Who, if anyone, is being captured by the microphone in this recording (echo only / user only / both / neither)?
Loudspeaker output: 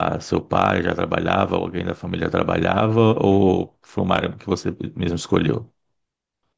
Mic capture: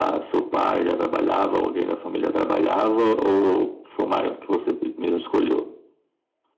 echo only